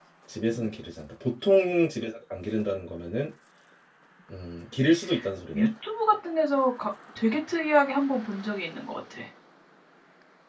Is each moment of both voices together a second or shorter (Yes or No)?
Yes